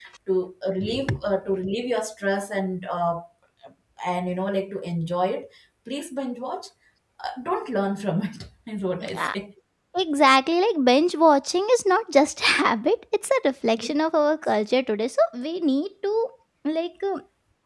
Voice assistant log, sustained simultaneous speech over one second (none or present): none